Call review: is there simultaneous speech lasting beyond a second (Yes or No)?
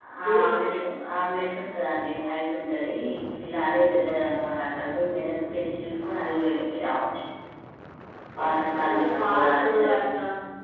Yes